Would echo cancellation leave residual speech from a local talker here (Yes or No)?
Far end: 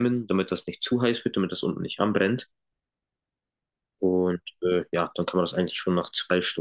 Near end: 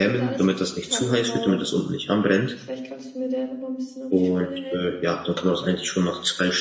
Yes